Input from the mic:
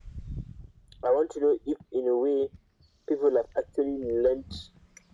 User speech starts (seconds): none

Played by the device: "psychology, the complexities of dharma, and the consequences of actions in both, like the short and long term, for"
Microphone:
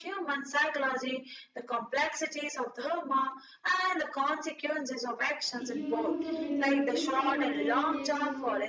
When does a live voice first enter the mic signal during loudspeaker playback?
5.5 s

